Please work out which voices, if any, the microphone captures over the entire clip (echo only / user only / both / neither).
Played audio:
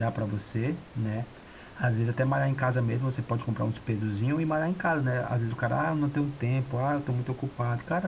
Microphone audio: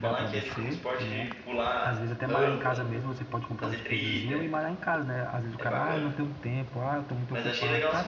both